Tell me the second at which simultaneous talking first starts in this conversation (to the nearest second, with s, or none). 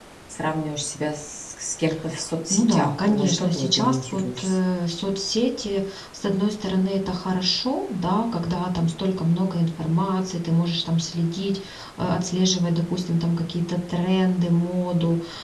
3 s